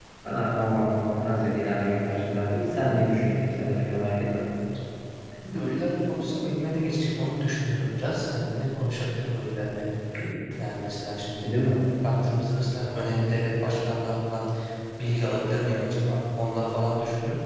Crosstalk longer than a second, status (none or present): none